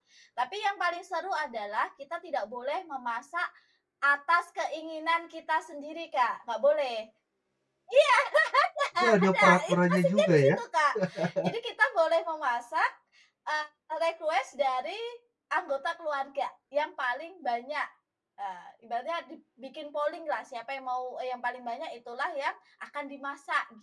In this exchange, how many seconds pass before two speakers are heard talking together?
9.0 s

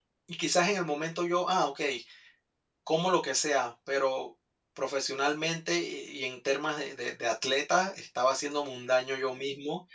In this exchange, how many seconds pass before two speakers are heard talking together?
none

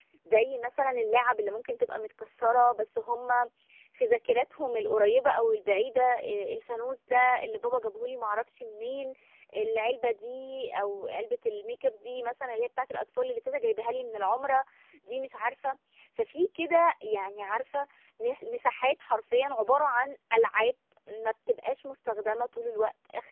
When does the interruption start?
none

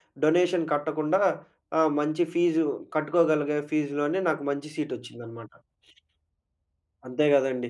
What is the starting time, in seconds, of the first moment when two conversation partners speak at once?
none

